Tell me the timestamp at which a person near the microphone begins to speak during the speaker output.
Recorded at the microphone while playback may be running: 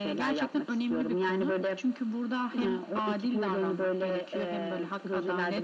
none

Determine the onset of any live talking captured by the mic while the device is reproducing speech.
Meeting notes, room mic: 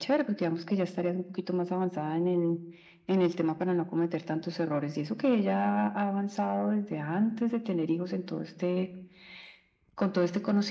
none

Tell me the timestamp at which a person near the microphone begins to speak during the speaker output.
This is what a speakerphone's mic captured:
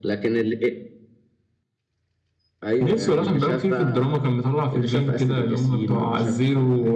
none

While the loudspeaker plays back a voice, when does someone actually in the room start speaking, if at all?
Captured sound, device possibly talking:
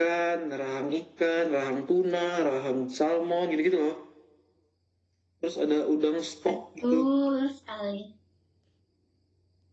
6.4 s

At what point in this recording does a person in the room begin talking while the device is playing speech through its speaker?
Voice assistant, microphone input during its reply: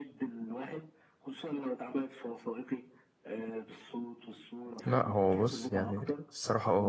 4.8 s

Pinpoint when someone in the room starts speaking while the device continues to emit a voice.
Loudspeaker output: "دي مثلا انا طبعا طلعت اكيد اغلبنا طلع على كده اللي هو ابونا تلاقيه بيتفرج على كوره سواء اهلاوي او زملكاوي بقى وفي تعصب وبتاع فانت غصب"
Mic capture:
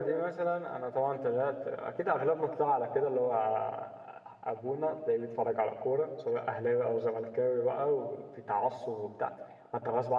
none

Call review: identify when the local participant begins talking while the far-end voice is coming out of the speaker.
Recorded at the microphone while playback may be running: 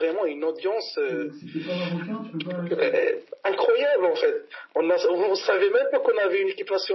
1.1 s

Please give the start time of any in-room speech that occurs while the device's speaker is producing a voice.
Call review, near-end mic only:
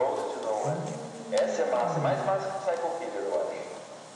0.6 s

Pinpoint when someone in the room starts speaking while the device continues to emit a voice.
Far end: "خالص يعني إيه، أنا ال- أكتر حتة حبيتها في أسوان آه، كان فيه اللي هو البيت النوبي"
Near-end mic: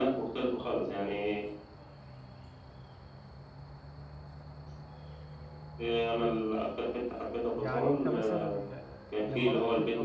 7.6 s

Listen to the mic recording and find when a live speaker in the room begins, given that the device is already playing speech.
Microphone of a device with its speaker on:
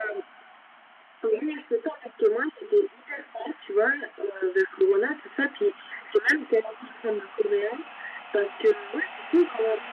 none

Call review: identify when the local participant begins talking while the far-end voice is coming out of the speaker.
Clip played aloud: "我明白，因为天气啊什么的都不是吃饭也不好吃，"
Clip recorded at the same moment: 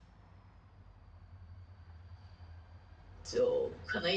3.2 s

